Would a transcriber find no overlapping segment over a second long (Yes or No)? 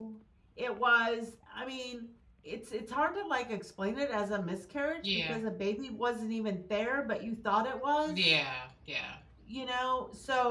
Yes